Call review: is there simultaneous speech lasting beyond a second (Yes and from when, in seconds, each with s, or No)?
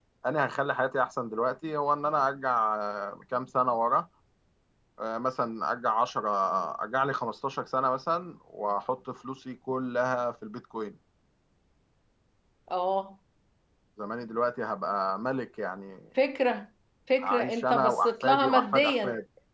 Yes, from 17.2 s